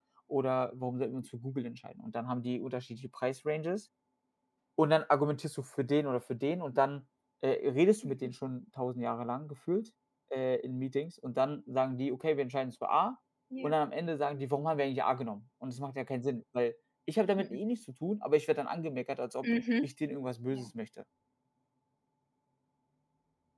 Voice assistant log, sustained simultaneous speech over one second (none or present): none